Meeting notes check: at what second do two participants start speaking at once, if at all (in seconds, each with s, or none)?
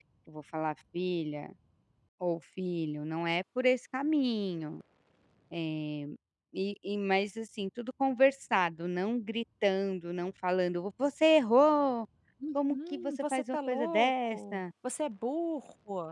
12.7 s